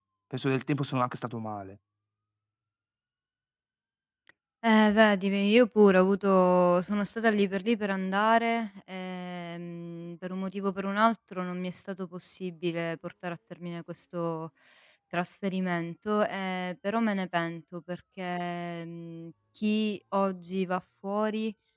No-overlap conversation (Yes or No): Yes